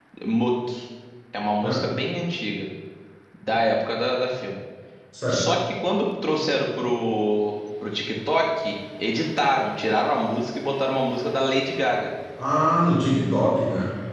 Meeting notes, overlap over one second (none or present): none